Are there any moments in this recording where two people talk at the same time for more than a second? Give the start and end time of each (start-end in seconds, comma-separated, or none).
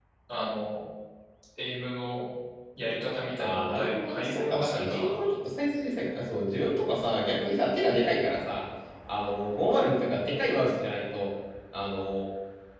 3.4-5.2